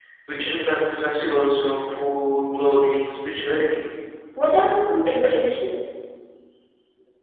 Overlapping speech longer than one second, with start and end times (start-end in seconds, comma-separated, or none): none